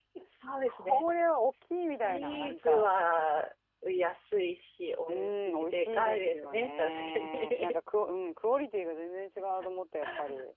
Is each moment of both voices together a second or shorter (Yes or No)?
No